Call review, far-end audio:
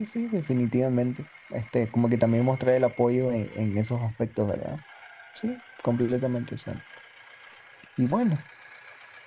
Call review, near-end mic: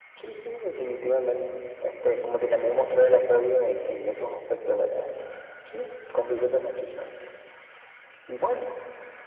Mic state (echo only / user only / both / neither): echo only